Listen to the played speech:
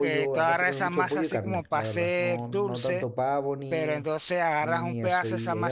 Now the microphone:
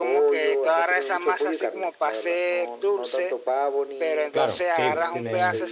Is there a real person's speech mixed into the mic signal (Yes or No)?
Yes